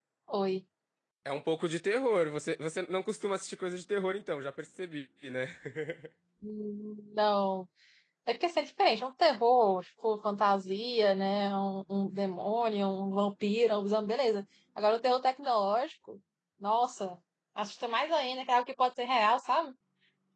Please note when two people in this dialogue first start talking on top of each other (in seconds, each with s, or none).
none